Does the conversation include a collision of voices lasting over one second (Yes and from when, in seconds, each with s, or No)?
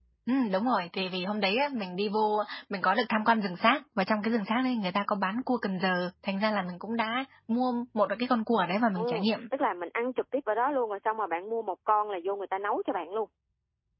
No